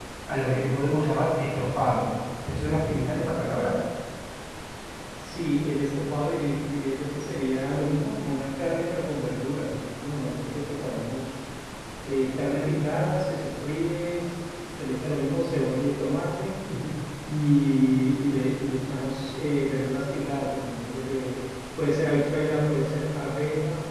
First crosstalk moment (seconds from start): none

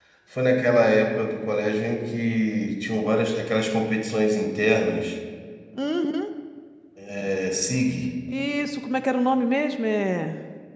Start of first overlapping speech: none

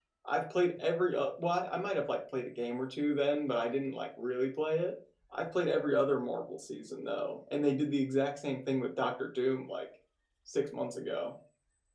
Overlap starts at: none

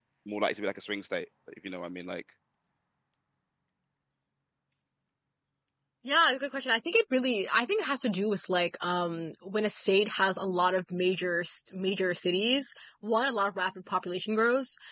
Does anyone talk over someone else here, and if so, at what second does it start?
none

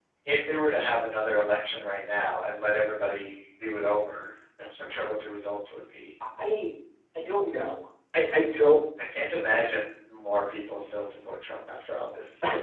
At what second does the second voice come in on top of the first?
none

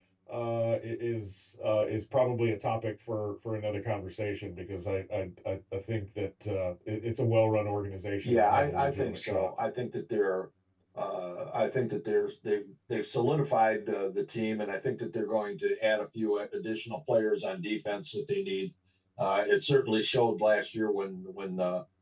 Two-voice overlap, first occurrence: 8.2 s

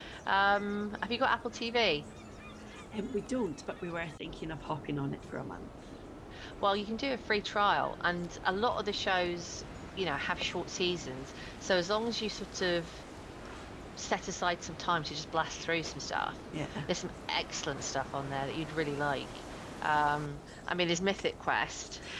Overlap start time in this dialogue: none

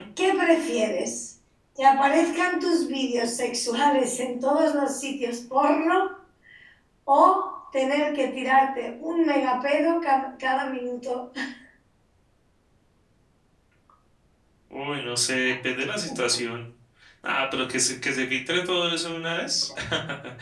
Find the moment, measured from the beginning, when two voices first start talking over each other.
none

